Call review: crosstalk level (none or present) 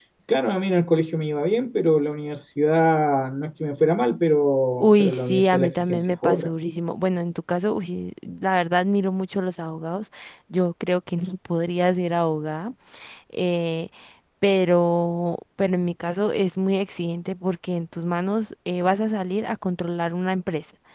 present